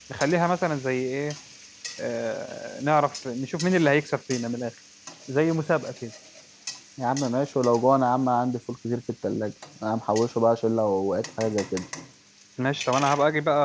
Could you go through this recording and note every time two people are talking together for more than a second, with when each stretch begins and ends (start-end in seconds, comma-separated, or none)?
none